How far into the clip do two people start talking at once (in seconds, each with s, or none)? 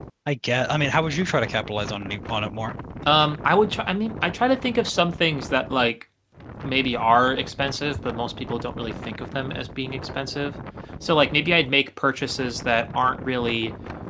none